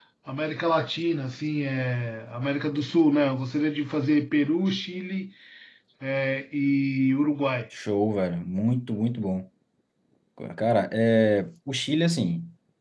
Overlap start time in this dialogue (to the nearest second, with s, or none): none